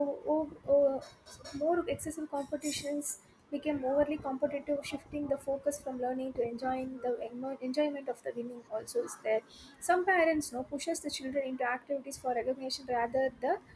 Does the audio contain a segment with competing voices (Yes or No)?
No